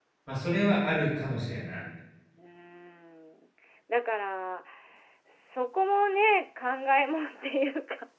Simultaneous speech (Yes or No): No